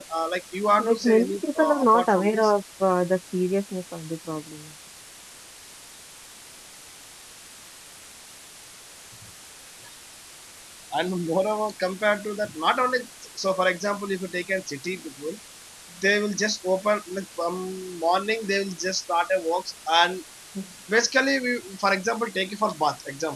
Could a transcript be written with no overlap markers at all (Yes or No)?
No